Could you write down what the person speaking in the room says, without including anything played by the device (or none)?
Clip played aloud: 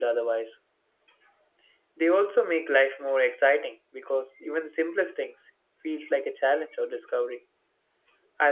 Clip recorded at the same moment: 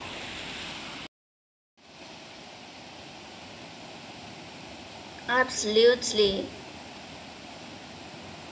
Absolutely.